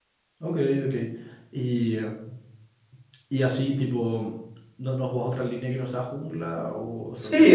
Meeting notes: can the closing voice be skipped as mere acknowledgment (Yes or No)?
No